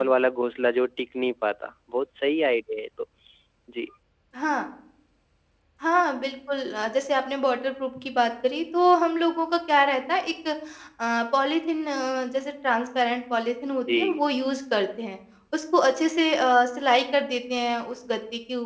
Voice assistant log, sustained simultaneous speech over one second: none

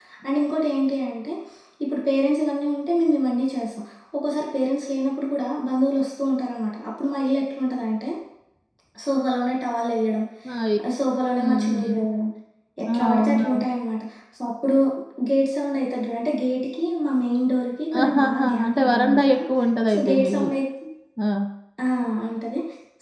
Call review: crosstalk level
present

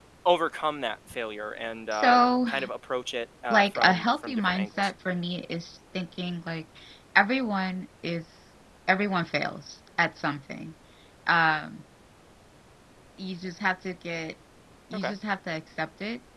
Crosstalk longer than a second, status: present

